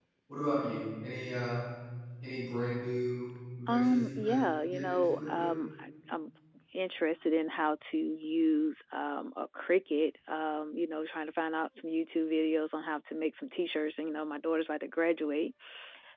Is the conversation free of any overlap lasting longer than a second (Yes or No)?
No